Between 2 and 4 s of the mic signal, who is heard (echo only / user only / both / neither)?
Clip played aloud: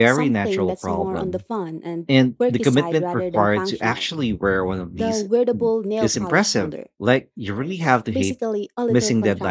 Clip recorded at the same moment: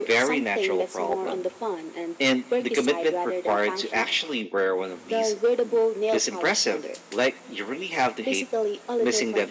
echo only